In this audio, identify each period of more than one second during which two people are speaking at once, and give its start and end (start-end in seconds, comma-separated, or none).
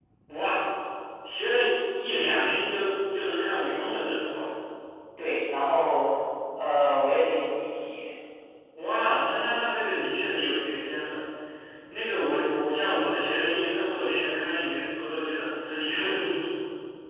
none